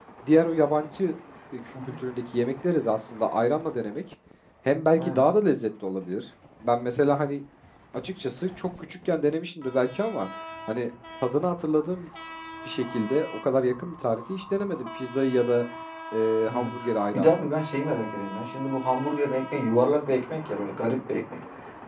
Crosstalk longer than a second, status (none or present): none